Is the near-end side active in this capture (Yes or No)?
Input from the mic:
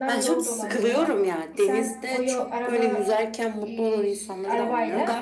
Yes